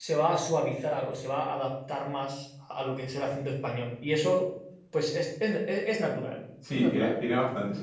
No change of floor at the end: No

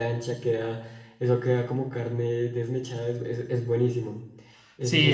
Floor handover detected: Yes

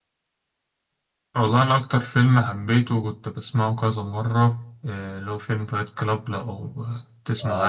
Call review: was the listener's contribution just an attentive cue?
No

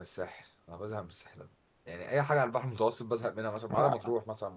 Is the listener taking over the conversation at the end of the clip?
No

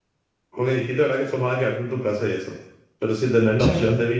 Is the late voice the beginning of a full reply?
No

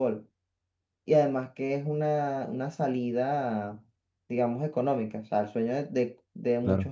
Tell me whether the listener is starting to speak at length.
No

